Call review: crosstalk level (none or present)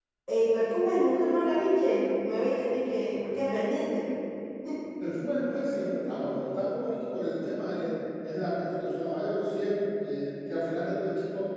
none